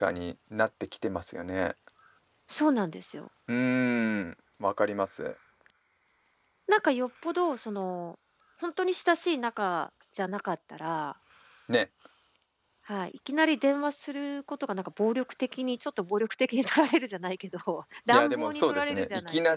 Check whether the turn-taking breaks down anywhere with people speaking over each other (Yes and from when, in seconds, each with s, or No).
Yes, from 18.1 s